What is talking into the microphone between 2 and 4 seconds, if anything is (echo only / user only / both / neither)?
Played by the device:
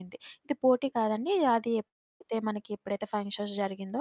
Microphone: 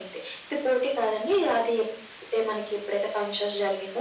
echo only